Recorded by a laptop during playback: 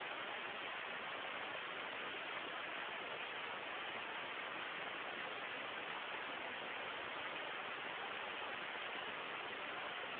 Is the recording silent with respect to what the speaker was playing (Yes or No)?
Yes